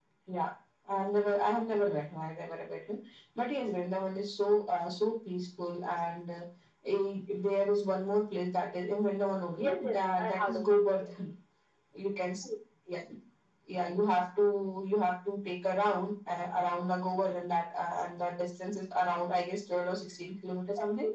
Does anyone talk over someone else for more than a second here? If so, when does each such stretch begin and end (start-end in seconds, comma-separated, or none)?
9.6-11.1